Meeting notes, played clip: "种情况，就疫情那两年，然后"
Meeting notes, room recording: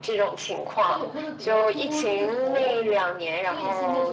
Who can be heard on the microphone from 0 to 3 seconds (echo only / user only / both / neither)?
both